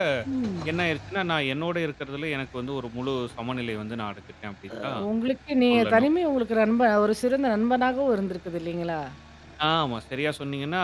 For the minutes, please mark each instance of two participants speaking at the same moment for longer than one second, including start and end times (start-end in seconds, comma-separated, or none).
none